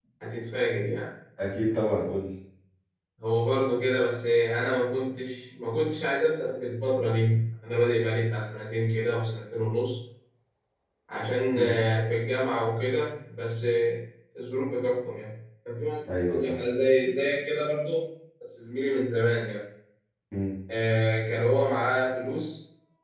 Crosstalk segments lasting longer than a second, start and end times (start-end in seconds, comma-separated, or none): none